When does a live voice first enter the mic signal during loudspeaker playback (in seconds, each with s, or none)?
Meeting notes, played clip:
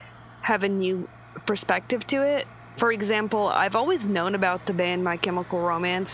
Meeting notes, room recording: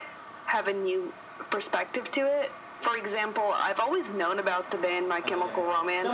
4.7 s